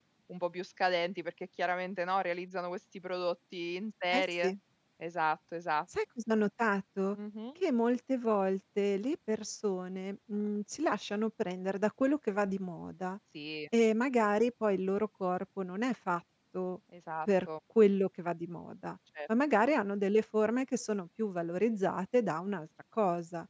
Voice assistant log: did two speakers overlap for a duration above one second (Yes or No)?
No